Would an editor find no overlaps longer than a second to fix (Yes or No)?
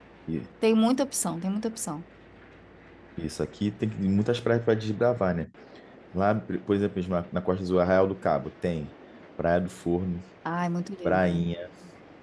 Yes